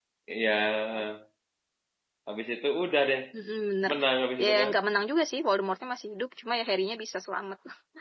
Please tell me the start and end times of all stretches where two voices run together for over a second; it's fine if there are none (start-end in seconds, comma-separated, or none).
none